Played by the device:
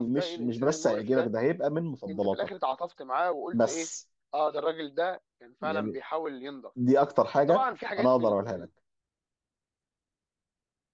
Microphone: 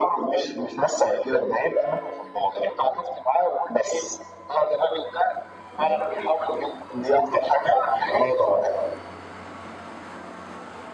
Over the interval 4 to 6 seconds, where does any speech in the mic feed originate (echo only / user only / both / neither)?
echo only